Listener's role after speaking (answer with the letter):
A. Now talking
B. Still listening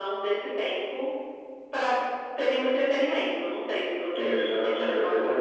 A